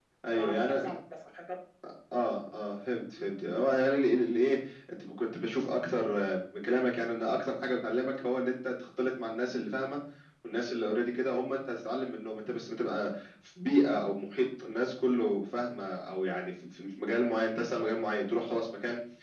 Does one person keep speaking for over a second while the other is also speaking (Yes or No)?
No